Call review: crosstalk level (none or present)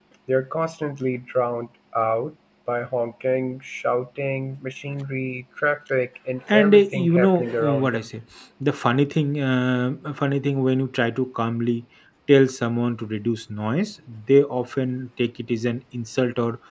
present